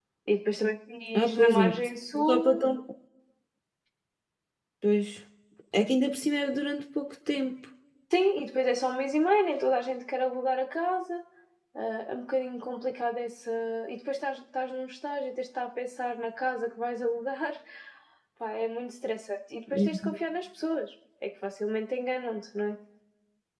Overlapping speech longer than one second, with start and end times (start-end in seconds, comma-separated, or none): 1.1-2.6